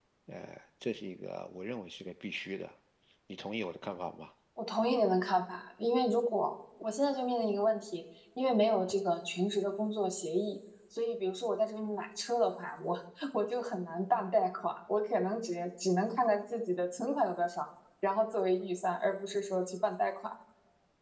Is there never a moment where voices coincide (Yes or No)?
Yes